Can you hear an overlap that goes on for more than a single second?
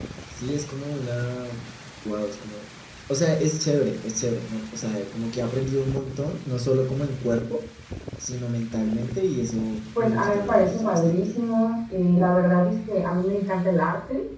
Yes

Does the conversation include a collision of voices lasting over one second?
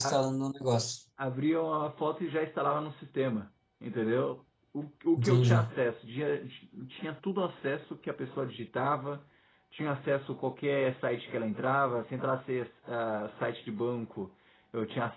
No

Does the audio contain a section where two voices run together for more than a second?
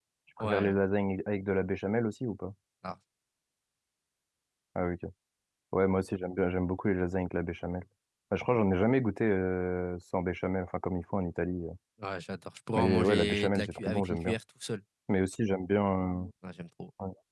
Yes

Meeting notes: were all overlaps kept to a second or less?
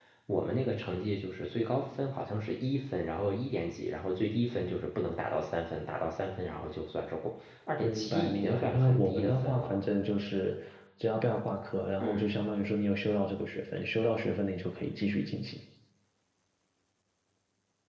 No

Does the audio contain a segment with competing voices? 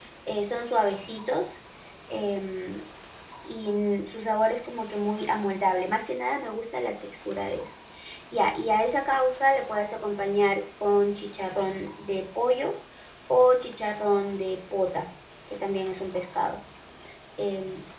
No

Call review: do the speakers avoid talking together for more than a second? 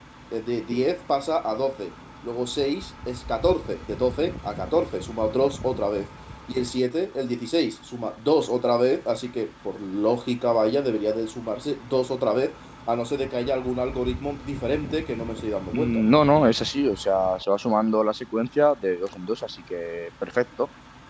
Yes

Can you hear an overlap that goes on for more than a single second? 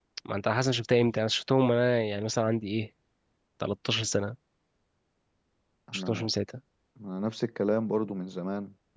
No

